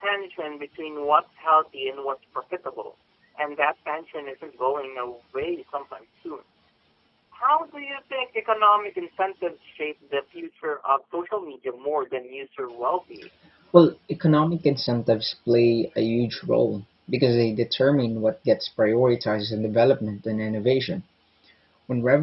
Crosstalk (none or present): none